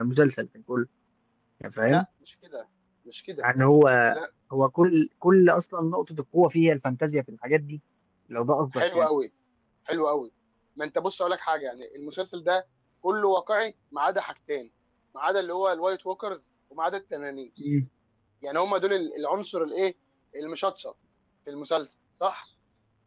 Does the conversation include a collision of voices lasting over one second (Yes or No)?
No